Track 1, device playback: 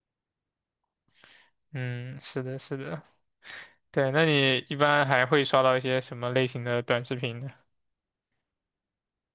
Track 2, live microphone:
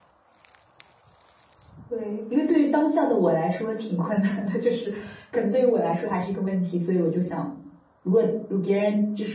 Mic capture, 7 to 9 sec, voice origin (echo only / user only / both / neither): user only